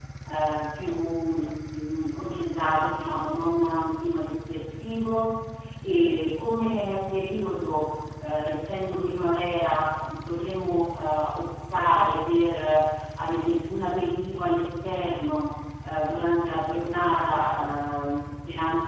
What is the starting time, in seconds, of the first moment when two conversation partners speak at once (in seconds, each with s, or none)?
none